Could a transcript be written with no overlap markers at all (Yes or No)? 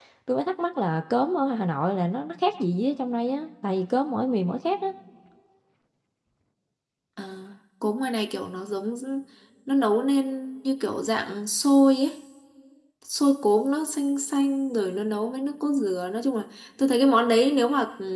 Yes